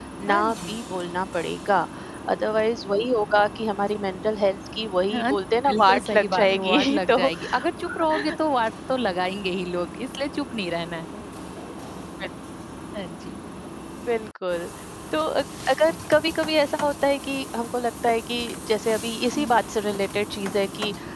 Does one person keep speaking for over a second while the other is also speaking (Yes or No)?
Yes